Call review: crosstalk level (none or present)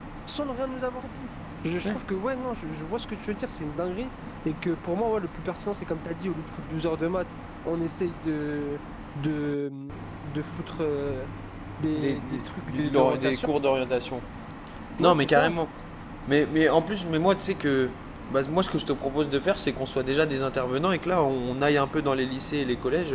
present